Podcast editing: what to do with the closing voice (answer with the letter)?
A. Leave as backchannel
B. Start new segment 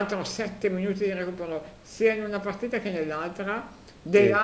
A